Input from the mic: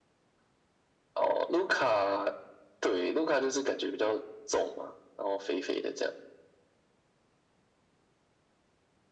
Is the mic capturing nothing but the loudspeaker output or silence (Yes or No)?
Yes